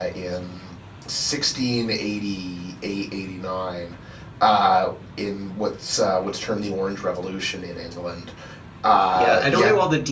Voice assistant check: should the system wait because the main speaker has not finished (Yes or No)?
No